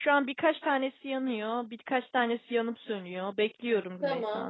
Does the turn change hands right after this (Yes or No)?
Yes